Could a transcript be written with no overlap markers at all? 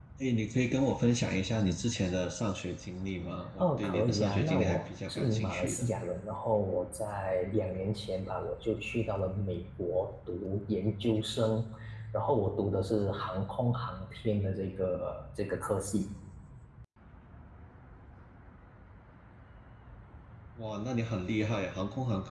No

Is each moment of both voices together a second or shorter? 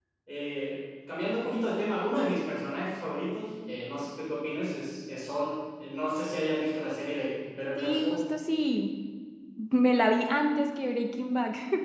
Yes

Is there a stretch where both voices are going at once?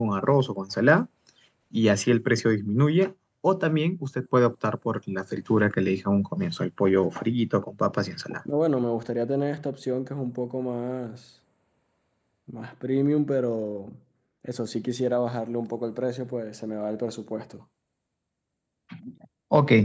No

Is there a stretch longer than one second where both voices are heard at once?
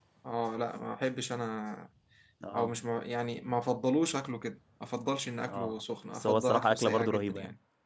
Yes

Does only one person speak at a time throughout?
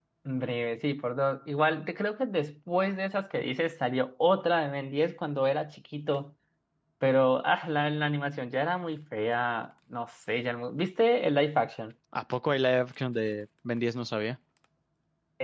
Yes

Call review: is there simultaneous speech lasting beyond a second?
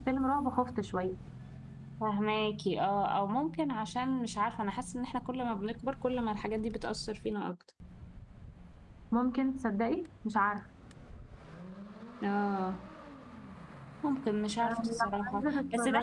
Yes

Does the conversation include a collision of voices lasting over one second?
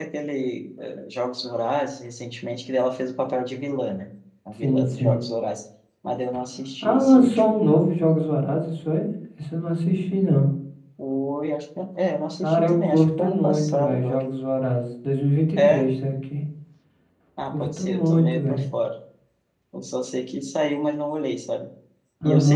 Yes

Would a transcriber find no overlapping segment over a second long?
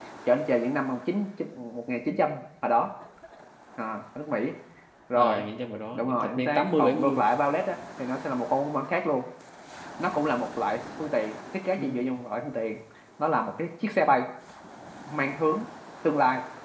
No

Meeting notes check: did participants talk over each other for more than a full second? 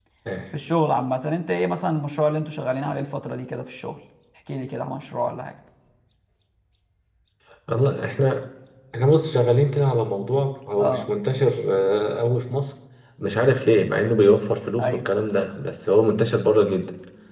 No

